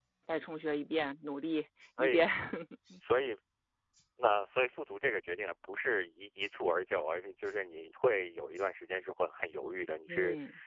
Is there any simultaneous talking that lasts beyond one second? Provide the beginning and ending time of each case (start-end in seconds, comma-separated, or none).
none